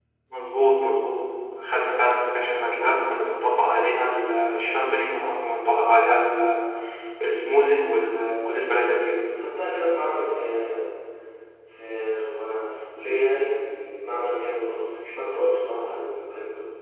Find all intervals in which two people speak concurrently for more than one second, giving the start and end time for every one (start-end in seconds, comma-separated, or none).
none